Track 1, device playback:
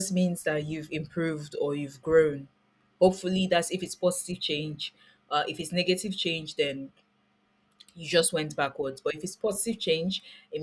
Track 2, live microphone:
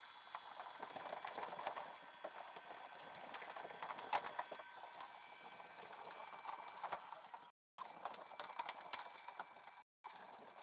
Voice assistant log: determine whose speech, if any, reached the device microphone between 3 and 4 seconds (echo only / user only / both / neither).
neither